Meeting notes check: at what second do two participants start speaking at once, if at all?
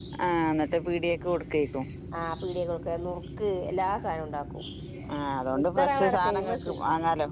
5.5 s

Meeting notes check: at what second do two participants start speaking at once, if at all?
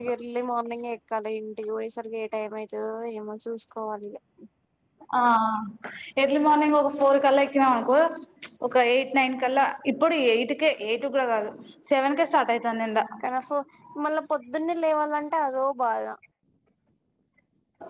none

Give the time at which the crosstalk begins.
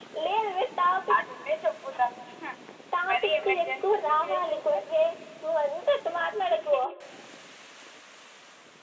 3.1 s

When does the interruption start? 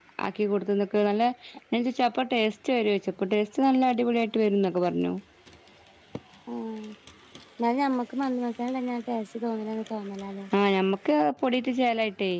none

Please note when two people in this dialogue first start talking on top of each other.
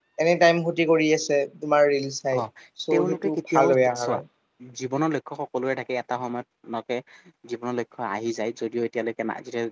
2.9 s

